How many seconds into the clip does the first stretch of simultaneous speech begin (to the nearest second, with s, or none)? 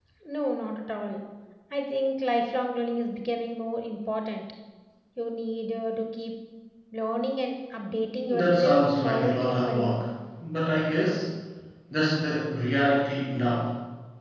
8 s